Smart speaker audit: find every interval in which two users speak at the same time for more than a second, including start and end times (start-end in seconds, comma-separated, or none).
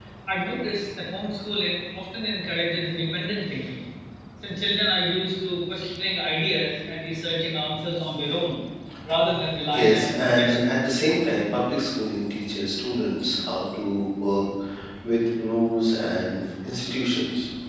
9.7-11.1